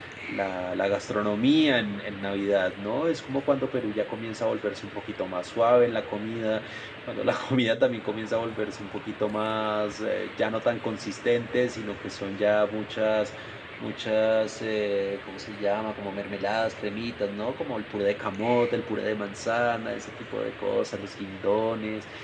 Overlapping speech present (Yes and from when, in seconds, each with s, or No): No